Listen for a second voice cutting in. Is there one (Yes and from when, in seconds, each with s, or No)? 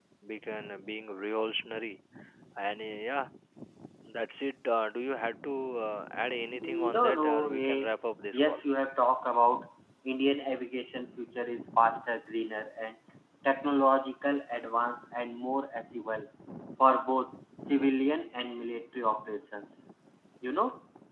Yes, from 6.5 s